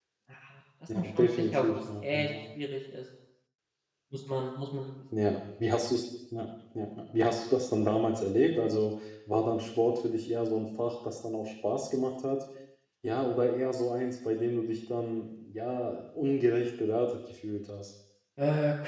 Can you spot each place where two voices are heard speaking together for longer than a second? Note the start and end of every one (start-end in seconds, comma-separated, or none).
1.0-2.3